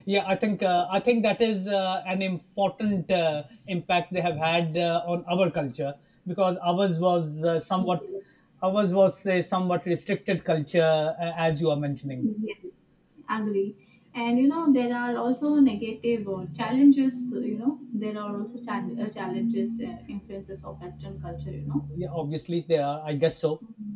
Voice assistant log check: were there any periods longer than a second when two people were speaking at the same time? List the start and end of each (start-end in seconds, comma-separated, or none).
none